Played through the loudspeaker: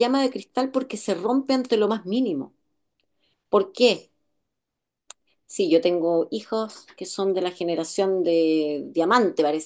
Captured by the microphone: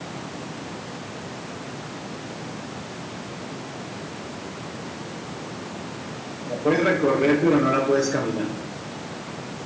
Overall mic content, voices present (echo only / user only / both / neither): user only